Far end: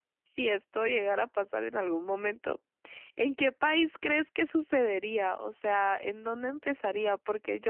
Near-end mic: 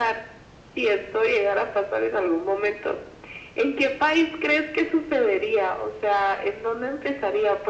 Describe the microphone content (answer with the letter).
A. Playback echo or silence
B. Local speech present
A